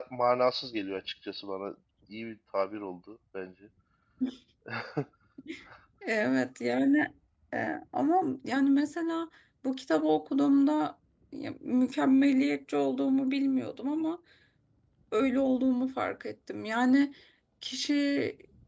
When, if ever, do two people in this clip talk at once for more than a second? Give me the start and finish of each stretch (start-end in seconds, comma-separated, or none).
none